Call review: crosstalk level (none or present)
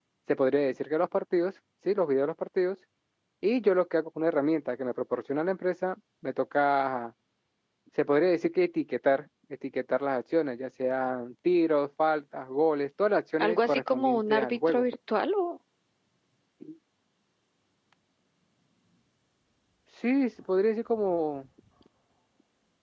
present